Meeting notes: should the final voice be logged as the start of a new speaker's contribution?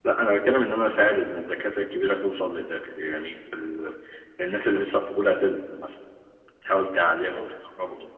No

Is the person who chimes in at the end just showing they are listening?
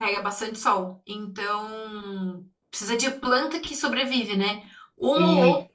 Yes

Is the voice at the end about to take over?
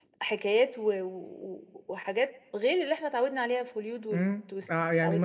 Yes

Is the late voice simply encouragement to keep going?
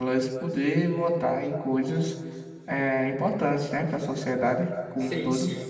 No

